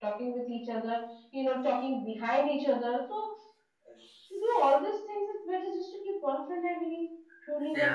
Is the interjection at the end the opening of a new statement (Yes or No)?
Yes